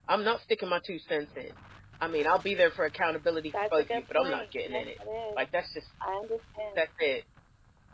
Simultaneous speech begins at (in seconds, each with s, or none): 3.5 s